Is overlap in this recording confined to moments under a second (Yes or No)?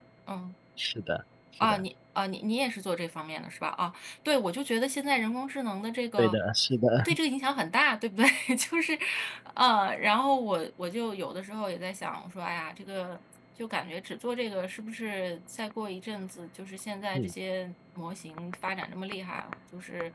Yes